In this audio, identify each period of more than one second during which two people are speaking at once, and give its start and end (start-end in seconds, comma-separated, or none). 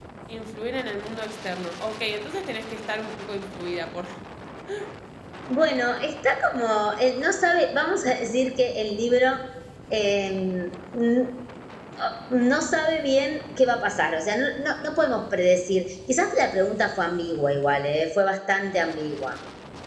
none